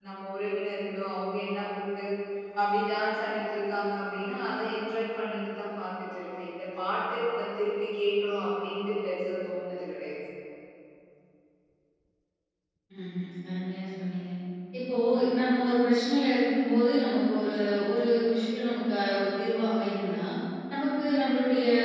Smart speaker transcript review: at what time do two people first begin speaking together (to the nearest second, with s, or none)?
none